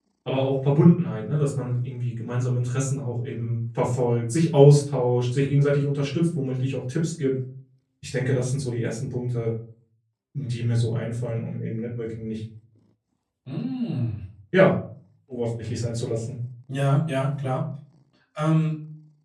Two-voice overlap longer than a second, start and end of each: none

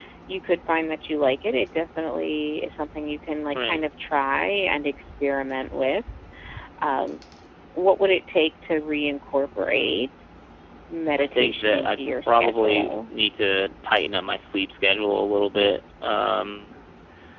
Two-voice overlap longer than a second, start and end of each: 11.2-13.1

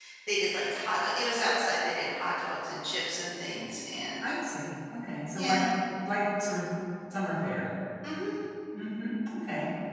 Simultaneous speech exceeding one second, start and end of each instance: none

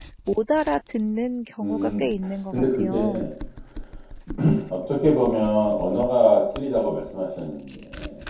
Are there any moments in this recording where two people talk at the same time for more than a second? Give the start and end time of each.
1.6-3.2

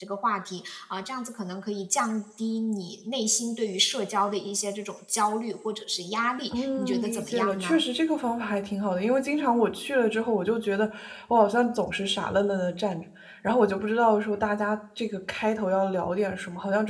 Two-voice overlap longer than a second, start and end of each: 6.5-7.8

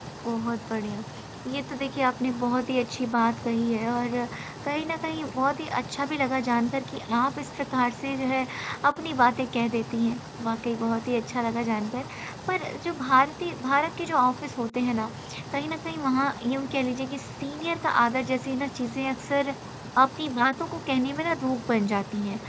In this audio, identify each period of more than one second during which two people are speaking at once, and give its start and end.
none

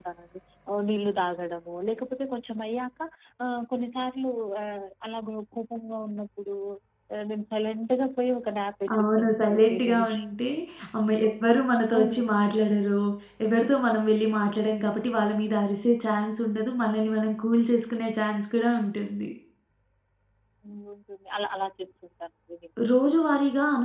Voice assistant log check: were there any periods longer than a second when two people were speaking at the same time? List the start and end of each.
8.9-10.2

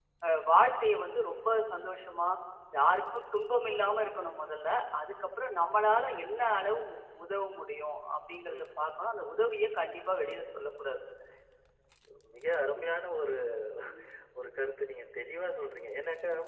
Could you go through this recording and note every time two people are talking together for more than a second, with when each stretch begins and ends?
none

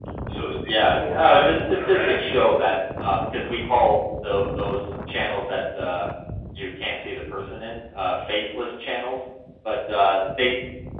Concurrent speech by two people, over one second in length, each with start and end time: 0.7-2.4

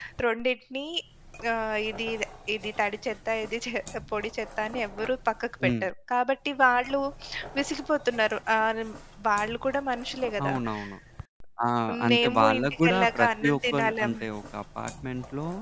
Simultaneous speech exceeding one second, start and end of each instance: 12.1-14.1

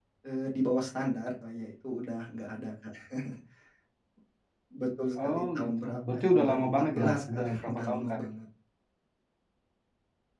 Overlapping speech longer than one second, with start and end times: 5.2-8.2

